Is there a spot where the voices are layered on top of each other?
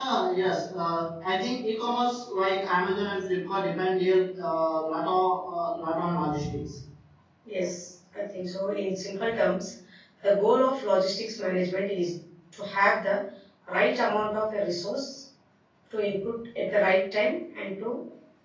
No

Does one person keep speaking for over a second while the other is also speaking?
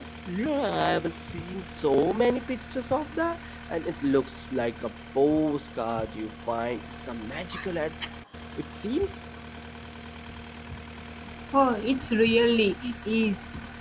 No

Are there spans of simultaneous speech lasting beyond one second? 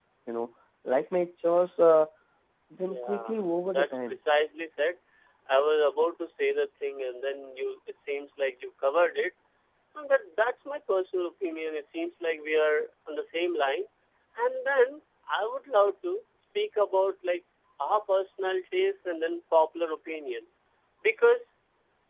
No

